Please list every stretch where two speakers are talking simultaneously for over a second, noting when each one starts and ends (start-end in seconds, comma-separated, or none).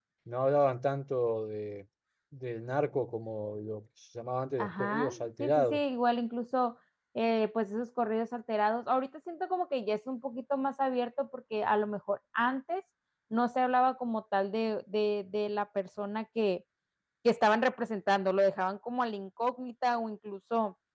4.6-5.8